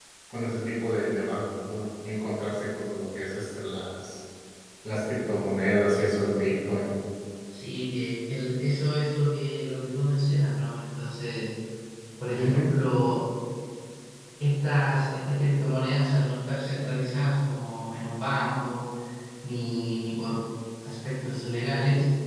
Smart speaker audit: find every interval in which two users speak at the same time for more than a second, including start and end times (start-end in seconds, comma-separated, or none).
none